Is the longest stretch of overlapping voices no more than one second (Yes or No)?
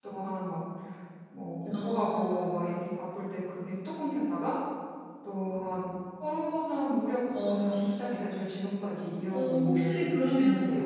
No